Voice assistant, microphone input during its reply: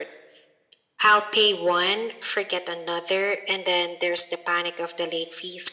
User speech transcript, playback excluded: none

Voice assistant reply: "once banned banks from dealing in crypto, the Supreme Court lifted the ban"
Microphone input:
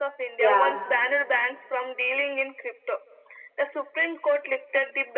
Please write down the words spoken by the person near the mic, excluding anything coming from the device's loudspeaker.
yeah.

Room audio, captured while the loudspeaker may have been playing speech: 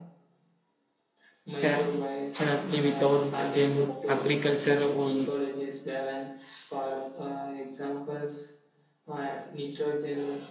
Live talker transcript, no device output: definitely without them agriculture will

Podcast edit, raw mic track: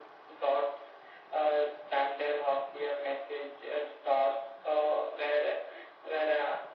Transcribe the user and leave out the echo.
none

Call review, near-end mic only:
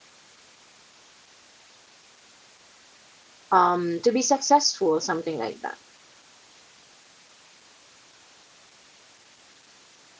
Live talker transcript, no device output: um to be successful something like that

